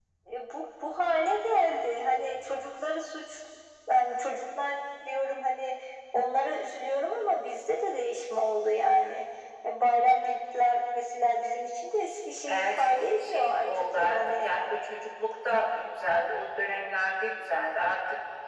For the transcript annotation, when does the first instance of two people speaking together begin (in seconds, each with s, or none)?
12.5 s